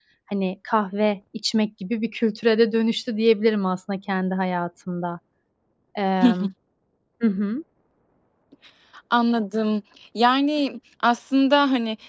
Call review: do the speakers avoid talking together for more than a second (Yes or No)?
Yes